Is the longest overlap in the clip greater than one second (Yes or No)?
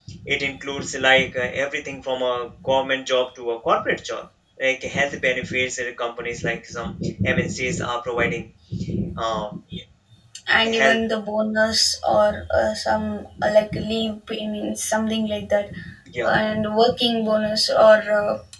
No